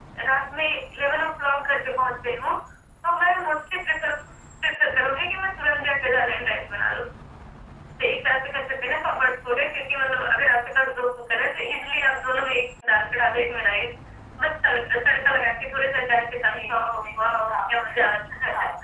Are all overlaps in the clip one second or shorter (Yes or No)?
No